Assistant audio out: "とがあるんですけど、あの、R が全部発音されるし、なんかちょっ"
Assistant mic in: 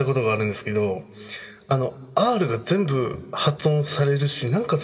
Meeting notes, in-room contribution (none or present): none